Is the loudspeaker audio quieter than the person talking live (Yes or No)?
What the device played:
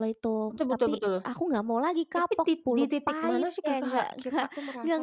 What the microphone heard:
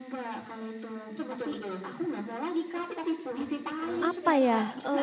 Yes